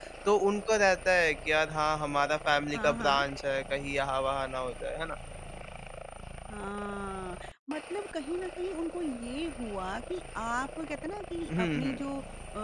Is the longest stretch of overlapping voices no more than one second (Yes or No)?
Yes